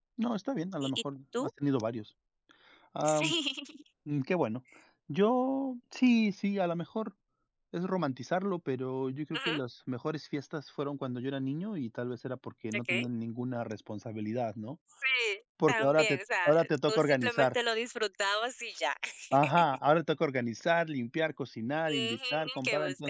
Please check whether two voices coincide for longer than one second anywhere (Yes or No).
Yes